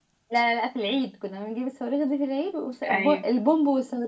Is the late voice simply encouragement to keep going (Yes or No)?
Yes